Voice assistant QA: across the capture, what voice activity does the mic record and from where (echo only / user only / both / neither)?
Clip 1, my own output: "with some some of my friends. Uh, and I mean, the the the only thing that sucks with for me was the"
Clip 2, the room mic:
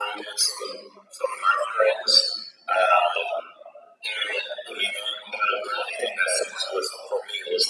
echo only